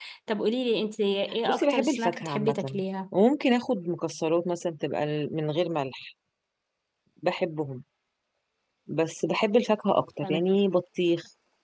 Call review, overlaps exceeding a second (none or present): present